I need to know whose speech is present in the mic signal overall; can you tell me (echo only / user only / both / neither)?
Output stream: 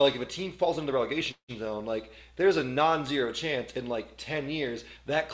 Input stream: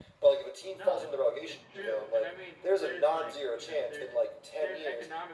both